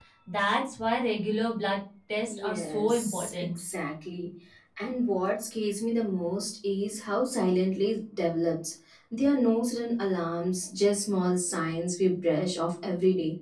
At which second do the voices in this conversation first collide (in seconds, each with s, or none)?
2.3 s